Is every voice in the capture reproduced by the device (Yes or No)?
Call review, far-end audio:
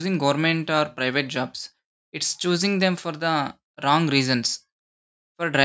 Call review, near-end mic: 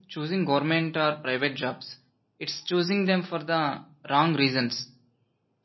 Yes